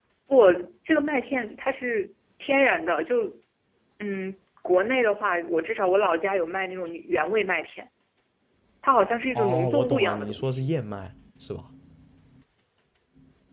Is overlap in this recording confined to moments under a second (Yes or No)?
No